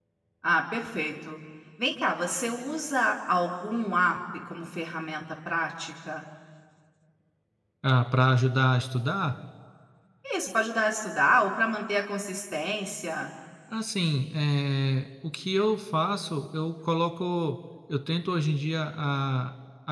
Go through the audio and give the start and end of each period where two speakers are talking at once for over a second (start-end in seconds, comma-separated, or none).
none